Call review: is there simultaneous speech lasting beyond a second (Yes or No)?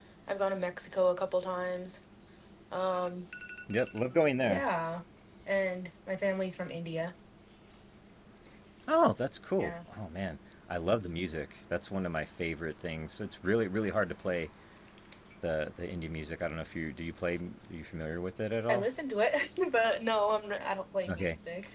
No